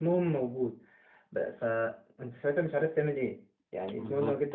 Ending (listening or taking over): listening